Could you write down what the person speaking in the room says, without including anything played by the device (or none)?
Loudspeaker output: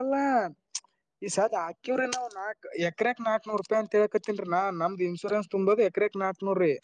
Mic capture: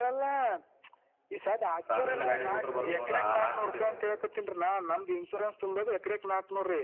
ಸಣ್ಣ ಗಾಡಿ ರೂಟ್ರ್ ಬರುತ್ ನೋಡ್ರಿ ಆ ನಾಕ್ ಪುಟಿಂದ